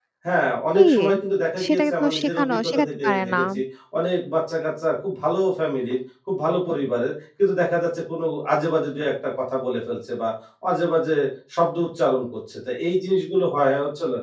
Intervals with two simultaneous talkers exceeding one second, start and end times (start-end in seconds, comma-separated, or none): 1.6-3.4